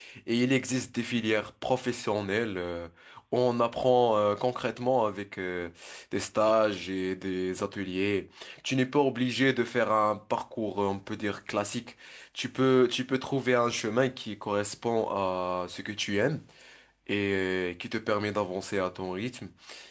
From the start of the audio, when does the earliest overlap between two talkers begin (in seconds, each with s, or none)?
none